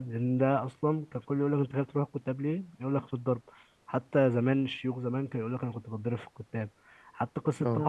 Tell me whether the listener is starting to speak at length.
No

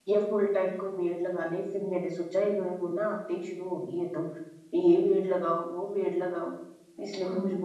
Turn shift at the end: Yes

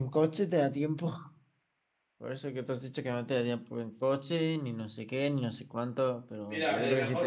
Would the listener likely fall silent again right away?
No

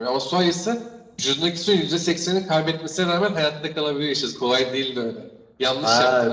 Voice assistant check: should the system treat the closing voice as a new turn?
Yes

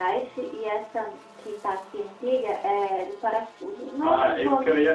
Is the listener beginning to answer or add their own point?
Yes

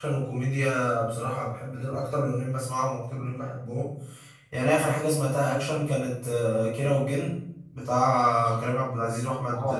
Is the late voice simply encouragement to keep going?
Yes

